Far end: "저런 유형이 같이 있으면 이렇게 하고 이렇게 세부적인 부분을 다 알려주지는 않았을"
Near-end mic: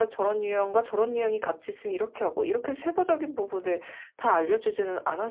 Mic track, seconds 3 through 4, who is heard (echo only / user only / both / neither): echo only